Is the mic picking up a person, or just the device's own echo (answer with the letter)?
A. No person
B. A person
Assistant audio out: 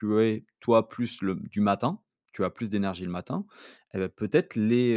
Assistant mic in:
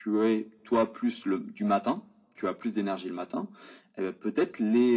A